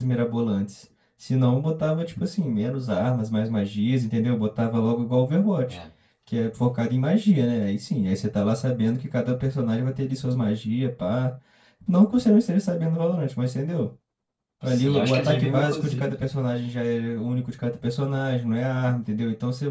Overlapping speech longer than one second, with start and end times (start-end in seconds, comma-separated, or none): 14.7-16.1